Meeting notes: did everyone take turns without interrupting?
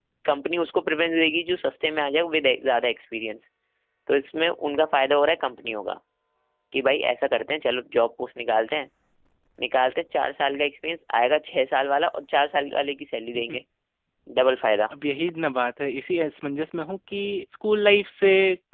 Yes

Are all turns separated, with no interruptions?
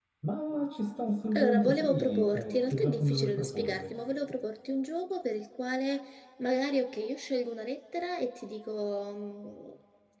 No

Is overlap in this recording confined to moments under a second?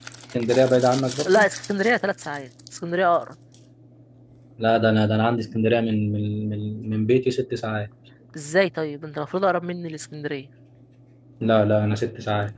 Yes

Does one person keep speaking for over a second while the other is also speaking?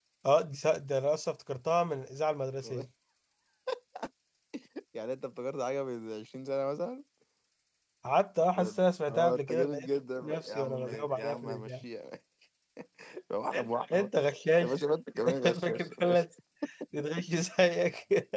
Yes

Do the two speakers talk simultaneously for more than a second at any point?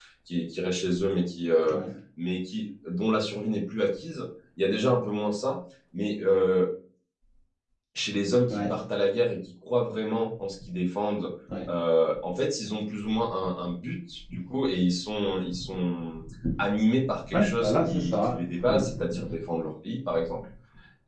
Yes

